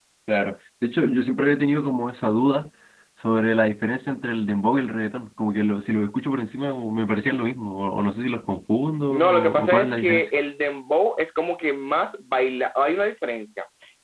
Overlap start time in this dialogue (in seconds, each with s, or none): 9.1 s